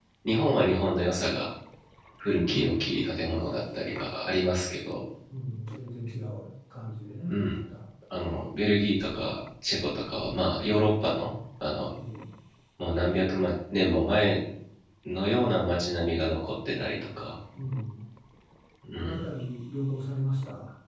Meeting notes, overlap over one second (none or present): none